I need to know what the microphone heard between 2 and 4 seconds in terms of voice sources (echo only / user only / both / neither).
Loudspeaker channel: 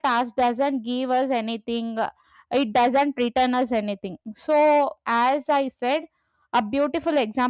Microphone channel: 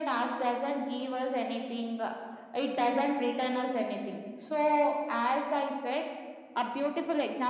echo only